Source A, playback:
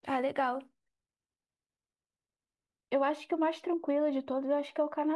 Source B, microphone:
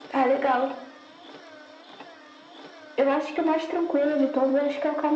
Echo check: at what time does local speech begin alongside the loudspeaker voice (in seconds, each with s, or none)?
none